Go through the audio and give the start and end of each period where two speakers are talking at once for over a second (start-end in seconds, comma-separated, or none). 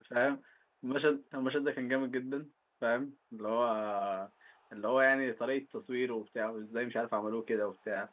none